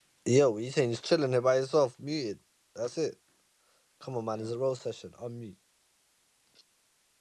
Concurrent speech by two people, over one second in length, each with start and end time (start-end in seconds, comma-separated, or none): none